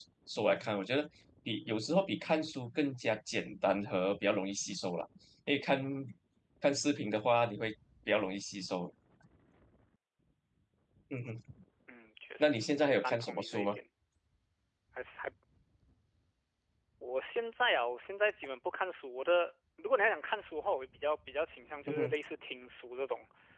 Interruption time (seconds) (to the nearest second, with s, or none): 12 s